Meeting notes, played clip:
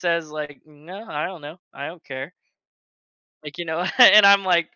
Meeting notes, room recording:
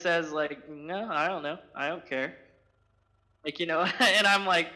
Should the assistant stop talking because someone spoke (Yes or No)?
No